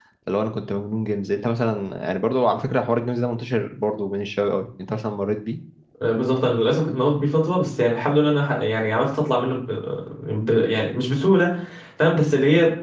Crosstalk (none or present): none